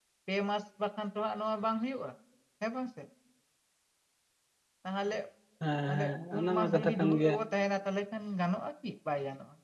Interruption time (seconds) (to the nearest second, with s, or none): 6 s